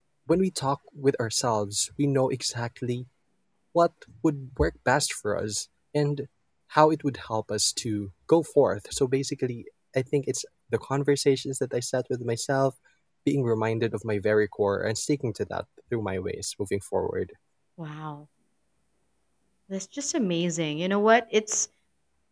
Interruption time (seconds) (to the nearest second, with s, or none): none